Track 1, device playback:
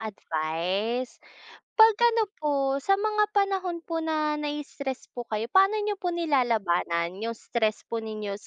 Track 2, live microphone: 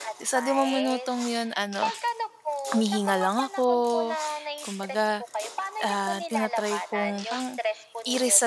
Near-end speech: present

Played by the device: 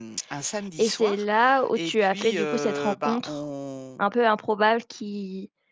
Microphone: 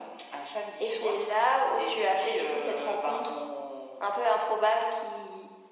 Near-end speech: none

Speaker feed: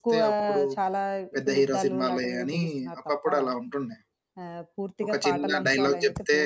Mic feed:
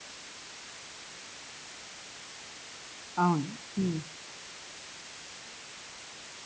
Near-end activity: present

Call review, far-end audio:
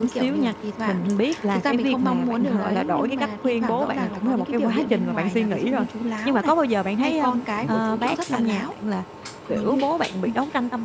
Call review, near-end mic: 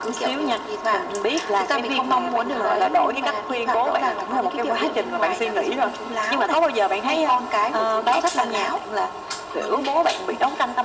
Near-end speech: none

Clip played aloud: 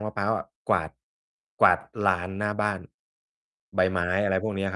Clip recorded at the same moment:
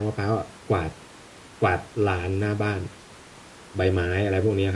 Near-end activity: none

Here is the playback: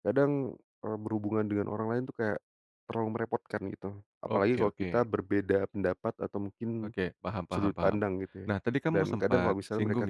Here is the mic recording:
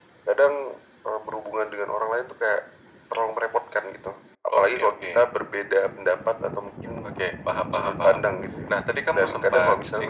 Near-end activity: none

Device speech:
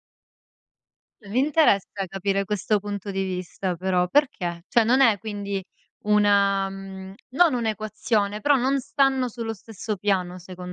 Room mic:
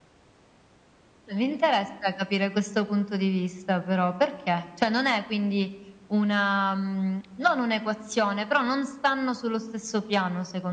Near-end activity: none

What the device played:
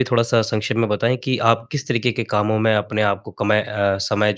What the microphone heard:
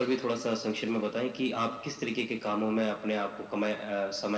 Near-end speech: none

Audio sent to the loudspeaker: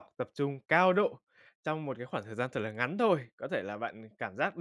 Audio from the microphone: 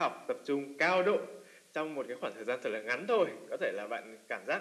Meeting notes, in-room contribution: none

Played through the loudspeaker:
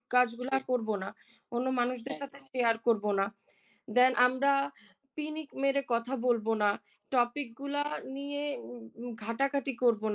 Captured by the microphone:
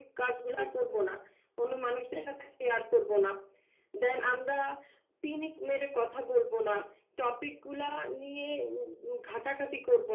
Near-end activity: none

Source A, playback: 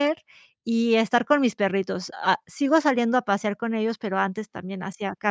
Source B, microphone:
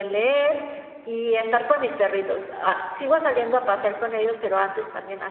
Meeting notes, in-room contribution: none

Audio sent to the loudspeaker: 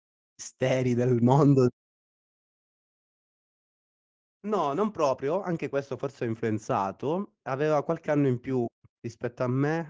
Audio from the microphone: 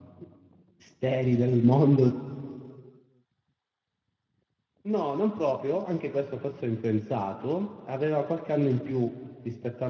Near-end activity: none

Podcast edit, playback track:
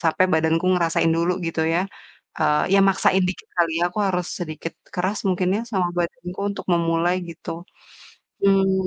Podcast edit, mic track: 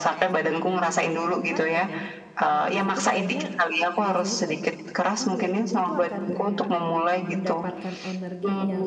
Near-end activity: present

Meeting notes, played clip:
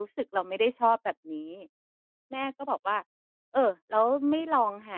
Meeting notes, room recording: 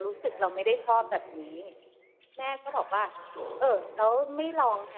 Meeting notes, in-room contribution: present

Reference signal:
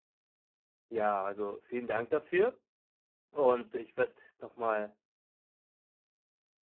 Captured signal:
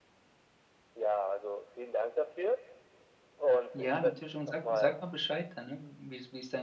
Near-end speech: present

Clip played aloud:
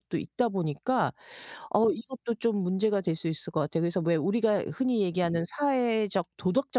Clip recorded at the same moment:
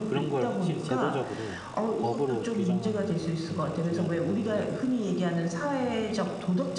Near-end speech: present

